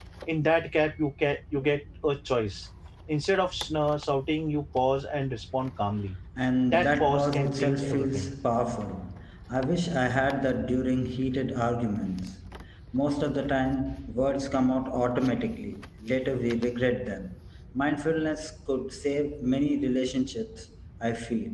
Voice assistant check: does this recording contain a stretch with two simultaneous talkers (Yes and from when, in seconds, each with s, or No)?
Yes, from 6.8 s